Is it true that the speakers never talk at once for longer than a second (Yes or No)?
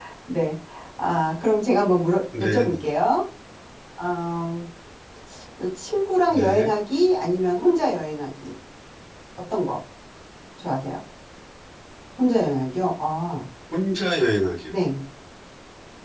Yes